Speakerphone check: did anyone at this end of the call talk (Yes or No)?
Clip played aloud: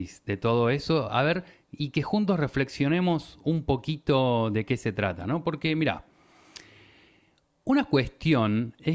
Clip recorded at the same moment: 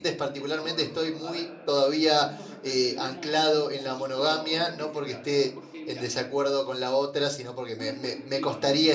Yes